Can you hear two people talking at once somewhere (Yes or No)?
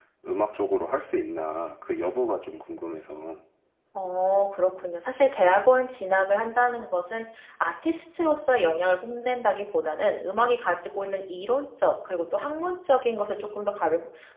No